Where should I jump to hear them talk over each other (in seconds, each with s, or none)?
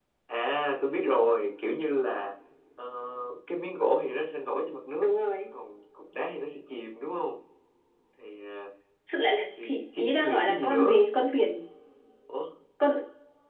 9.6 s